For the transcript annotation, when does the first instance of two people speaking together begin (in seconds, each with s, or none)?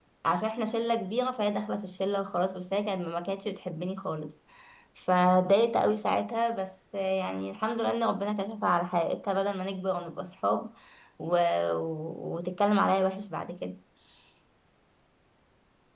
none